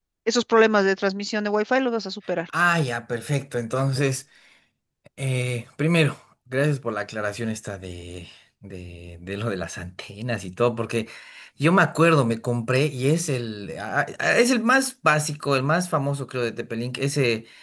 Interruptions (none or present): none